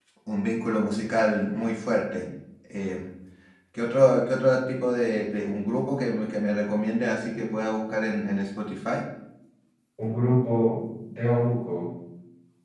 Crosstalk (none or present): none